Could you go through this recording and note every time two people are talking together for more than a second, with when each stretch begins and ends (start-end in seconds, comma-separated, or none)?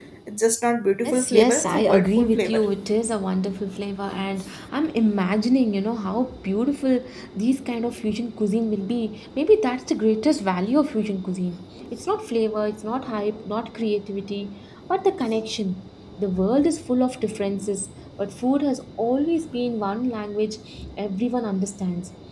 1.0-2.6